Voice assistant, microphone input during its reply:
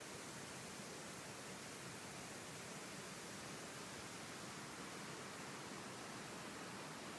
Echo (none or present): none